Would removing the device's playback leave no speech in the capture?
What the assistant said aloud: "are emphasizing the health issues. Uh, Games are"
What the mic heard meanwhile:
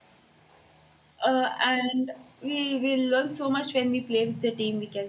No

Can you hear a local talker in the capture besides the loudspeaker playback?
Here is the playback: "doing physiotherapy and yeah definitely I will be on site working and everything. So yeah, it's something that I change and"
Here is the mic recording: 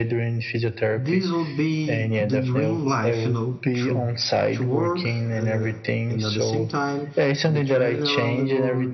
Yes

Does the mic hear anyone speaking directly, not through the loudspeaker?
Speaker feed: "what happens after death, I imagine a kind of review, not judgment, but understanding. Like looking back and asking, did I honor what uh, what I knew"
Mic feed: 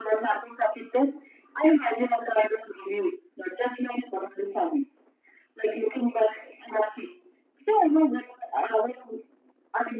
No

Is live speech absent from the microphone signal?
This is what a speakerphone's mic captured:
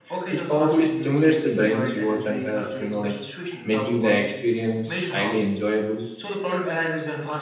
No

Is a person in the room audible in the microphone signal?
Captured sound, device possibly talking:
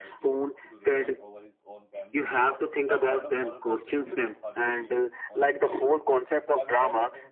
Yes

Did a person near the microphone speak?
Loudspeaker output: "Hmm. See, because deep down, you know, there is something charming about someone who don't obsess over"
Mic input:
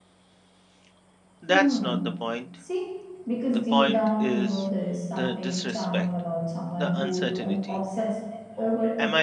Yes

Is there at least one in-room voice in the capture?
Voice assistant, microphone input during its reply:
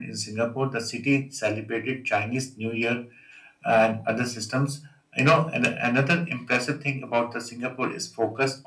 No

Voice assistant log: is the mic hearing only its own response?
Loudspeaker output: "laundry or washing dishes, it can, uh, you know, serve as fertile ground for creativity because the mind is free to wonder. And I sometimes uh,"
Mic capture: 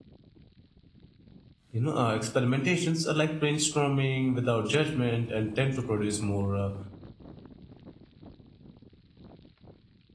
No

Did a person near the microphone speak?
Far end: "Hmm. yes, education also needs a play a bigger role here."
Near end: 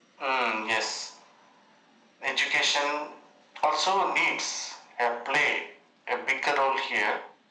No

